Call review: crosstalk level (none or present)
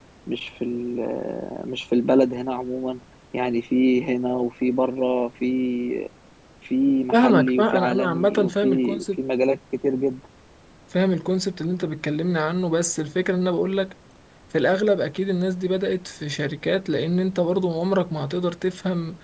present